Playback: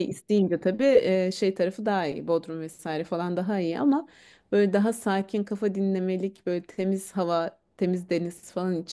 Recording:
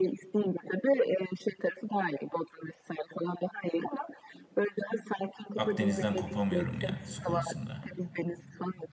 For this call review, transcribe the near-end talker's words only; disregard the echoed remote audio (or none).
Akdeniz'den kopamıyorum ya su konusunda.